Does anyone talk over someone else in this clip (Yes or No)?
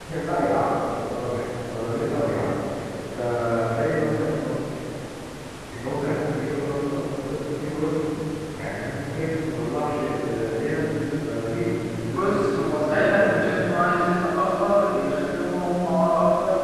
Yes